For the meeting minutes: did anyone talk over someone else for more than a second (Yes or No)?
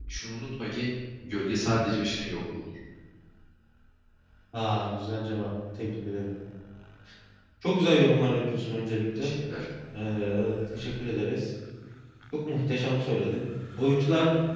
No